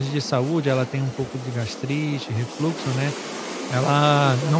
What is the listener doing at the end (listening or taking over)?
listening